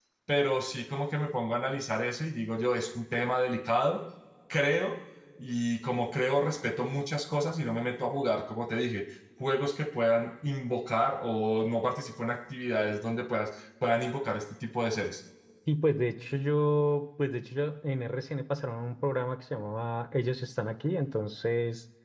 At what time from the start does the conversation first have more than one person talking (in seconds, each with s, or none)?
none